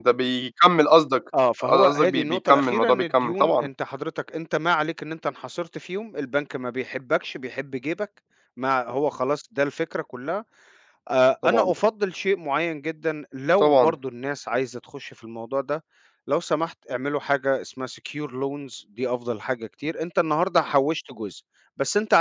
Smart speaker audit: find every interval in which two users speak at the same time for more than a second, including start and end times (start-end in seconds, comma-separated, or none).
1.6-3.7